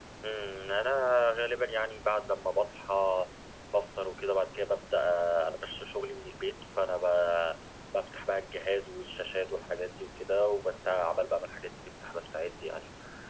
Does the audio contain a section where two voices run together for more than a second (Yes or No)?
No